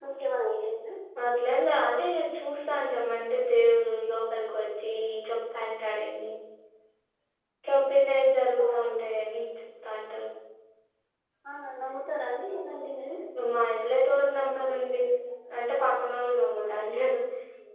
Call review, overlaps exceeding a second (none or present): none